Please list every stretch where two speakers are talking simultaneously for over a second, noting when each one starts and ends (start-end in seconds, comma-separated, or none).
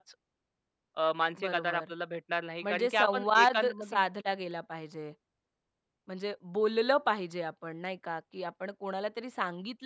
2.6-4.0